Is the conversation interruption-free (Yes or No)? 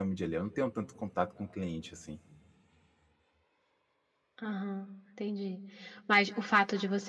Yes